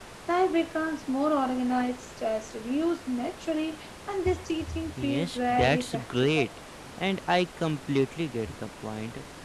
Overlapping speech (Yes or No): Yes